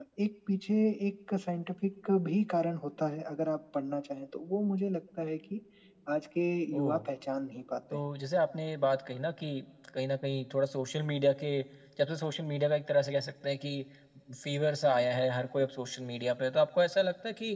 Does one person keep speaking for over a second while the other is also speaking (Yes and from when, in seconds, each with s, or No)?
No